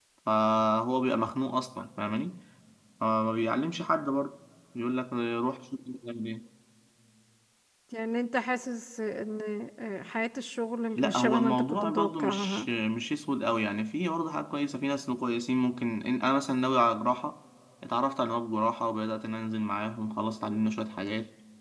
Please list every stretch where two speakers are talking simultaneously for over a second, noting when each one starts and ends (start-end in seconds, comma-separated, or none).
11.0-12.7